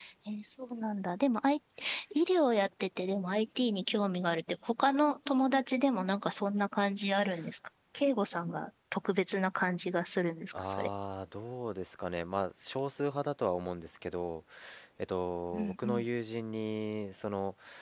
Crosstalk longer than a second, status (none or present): none